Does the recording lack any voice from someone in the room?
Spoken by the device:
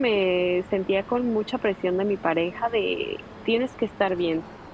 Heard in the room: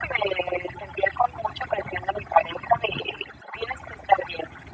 Yes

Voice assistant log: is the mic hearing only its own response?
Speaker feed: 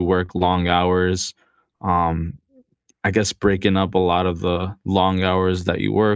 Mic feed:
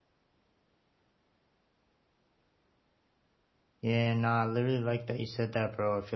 No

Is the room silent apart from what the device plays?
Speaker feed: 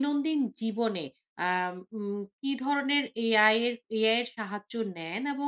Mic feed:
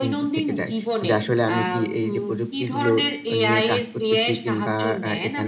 No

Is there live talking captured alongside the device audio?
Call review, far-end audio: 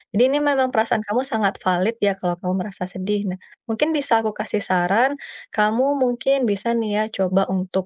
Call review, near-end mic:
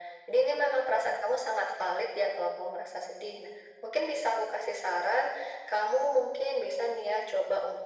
No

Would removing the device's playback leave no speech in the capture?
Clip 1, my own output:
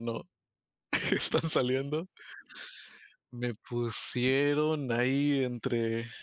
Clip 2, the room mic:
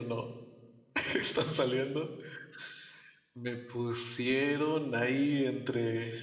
Yes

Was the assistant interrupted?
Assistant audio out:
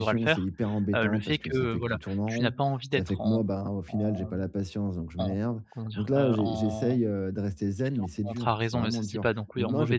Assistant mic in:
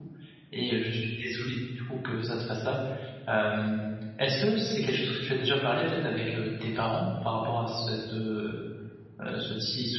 Yes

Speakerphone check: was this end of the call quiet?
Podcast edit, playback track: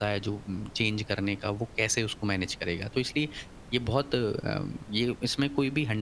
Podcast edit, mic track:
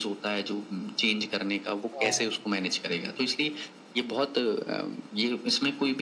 No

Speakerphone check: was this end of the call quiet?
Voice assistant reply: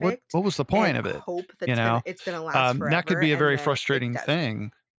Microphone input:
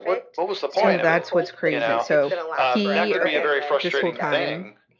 No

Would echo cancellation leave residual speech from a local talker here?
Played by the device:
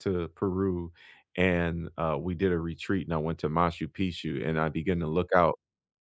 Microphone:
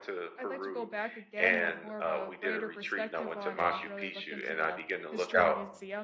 Yes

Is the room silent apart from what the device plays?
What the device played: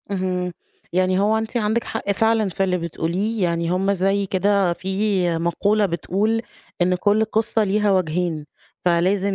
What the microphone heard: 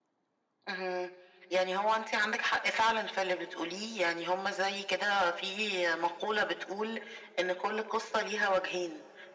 Yes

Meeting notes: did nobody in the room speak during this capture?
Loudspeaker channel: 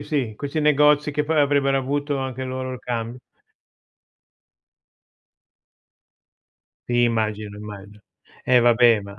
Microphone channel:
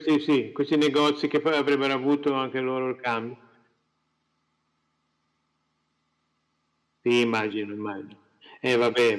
Yes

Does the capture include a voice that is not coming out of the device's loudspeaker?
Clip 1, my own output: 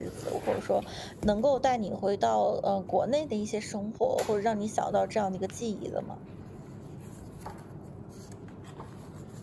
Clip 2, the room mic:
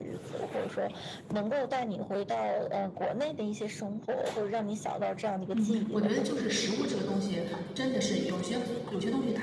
Yes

